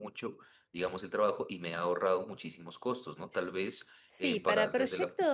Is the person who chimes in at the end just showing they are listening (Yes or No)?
No